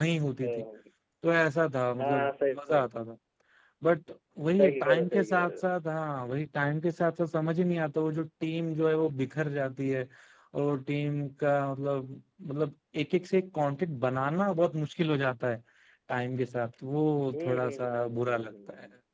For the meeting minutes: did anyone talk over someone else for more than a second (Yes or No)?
Yes